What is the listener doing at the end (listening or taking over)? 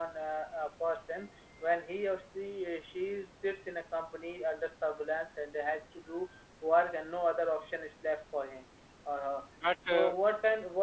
listening